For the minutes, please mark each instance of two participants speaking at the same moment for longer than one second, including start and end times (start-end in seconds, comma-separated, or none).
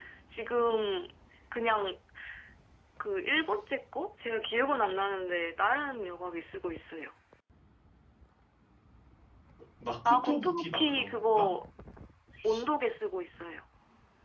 10.1-11.5